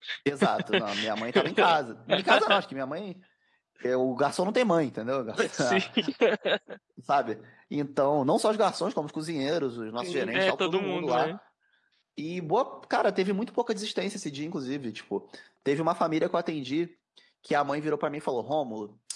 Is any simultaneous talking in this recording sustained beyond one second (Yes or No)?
Yes